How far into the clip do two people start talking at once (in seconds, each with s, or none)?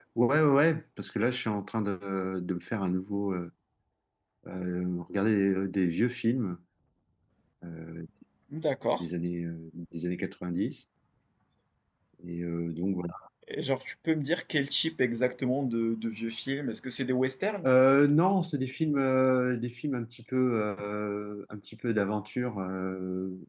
none